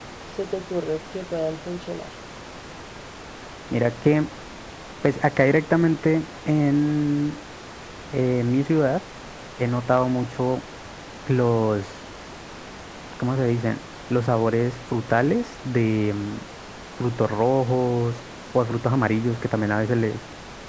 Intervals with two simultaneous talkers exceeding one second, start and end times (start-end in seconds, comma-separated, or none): none